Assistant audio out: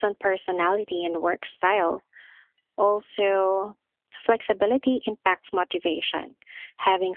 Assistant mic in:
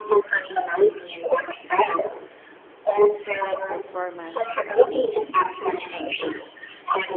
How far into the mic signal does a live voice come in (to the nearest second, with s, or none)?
3 s